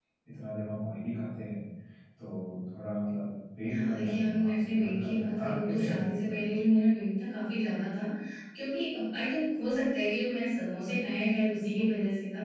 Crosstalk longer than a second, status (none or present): present